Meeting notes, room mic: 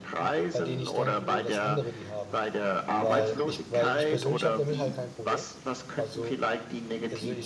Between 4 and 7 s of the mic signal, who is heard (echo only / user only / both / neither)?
both